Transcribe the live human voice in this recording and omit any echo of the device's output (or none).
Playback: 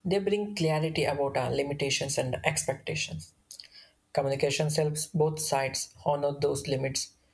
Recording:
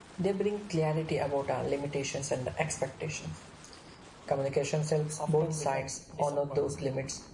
often becomes disappointment.